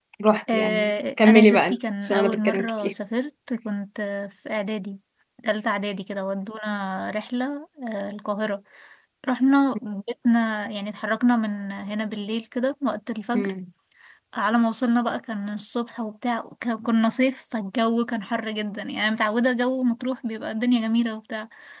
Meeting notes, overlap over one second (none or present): present